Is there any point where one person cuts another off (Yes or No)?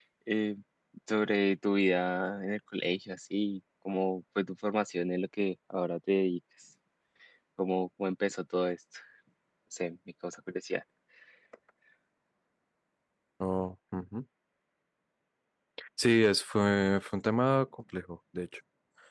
No